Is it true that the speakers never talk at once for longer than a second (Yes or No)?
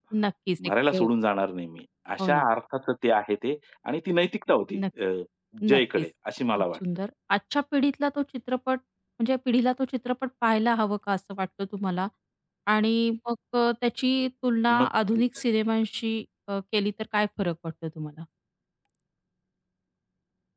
Yes